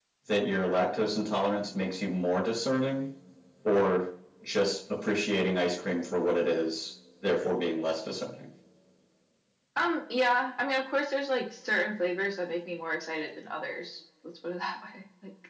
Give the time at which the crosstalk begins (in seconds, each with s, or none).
none